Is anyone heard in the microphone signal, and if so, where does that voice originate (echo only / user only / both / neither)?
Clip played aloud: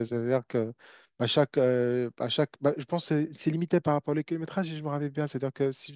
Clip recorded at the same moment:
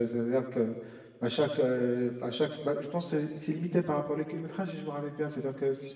echo only